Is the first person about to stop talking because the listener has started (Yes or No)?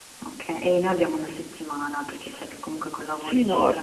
Yes